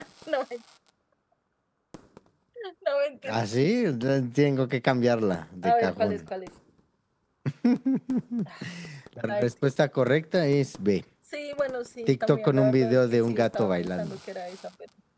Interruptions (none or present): present